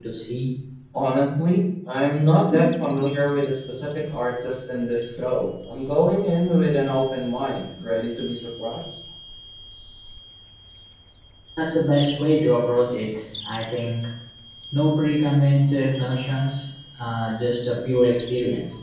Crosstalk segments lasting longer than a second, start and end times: none

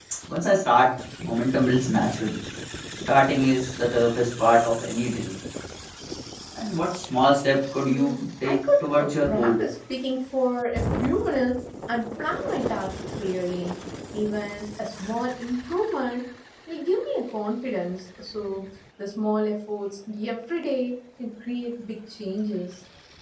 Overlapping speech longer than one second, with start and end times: 7.8-9.6

